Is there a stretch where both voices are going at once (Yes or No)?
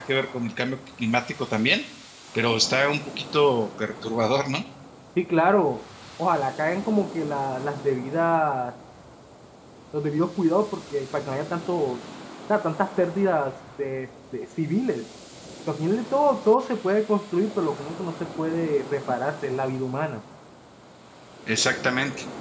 No